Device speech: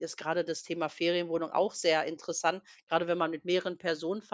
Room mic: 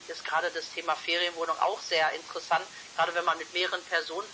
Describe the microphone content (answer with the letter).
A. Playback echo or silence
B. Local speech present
A